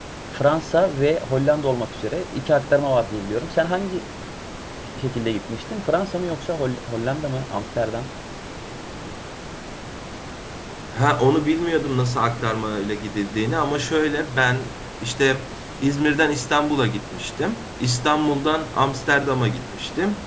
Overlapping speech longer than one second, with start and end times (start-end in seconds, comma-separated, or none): none